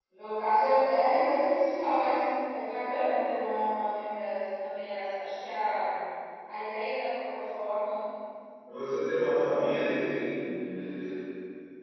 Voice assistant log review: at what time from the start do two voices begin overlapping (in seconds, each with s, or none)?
none